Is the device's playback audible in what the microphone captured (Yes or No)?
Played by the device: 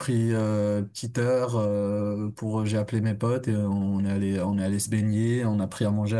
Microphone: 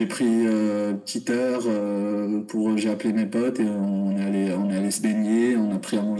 Yes